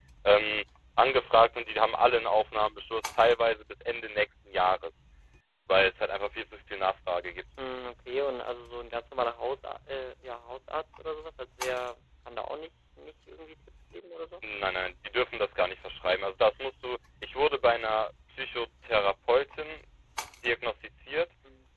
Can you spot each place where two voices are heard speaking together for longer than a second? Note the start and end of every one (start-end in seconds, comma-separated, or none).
none